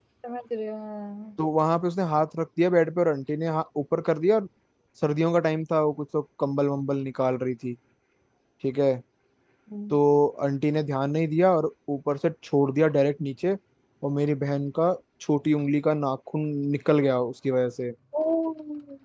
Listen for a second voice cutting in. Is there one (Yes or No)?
No